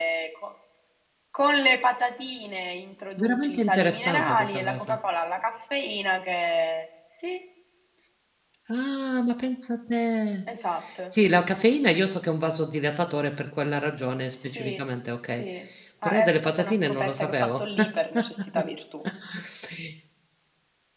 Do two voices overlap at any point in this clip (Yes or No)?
Yes